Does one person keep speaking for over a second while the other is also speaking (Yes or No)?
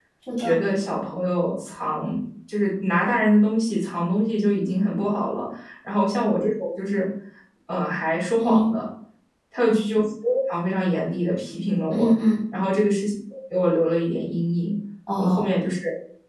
No